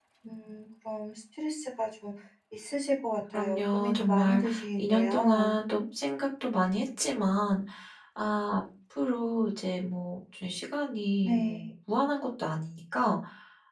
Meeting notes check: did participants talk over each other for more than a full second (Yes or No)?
Yes